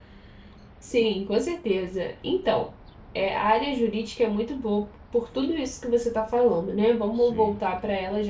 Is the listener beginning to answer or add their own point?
No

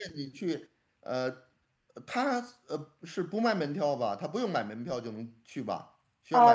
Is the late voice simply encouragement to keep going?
No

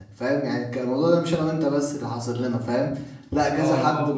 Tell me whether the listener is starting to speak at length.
Yes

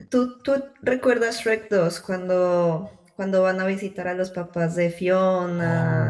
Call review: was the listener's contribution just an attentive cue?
No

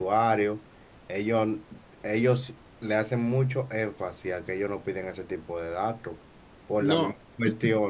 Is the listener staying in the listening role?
Yes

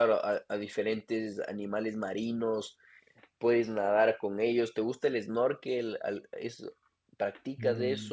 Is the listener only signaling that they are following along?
No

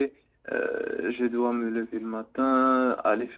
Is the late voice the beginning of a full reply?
No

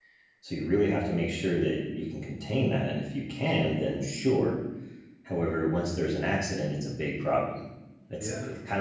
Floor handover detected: No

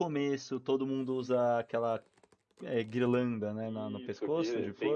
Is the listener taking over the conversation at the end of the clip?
Yes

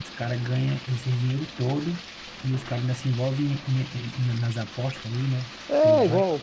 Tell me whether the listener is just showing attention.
No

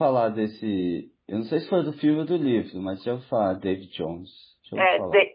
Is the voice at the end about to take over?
Yes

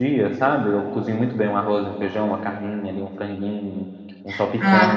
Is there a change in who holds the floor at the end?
Yes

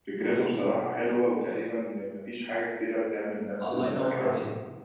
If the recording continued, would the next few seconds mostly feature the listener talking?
Yes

